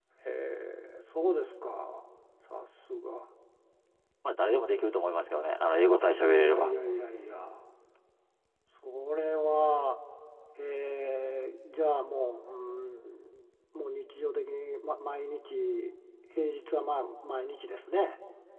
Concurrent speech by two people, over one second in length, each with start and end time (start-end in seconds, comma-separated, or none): none